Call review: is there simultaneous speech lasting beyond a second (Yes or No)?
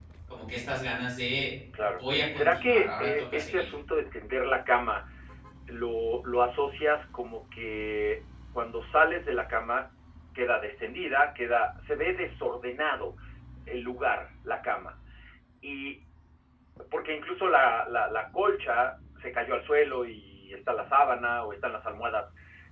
Yes